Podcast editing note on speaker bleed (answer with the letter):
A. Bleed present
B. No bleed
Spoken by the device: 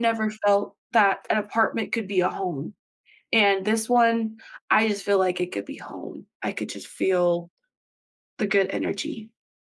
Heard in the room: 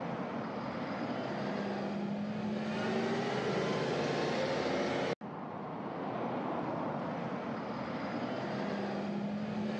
B